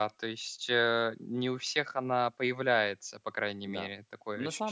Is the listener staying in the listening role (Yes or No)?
No